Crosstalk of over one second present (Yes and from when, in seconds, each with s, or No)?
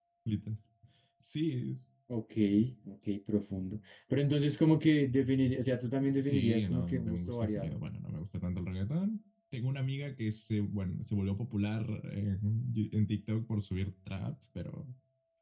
Yes, from 6.2 s